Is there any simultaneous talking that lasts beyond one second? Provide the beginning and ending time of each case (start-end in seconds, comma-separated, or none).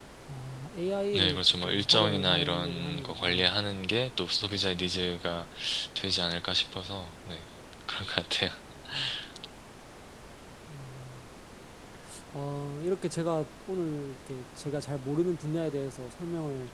1.1-3.5